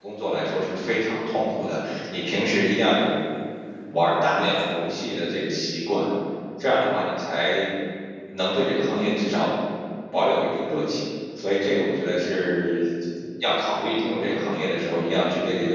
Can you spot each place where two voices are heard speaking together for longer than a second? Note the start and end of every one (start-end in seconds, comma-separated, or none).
none